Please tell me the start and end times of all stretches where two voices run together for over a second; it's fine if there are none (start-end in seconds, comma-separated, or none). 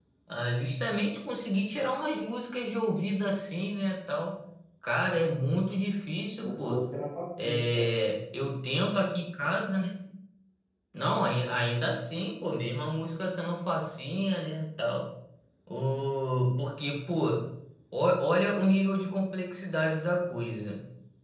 none